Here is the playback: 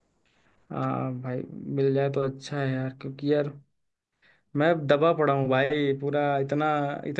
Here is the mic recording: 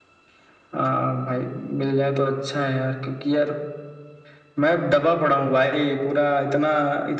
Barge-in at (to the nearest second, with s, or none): none